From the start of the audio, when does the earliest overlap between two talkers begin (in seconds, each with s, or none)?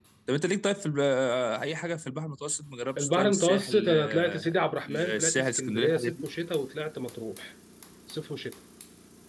3.0 s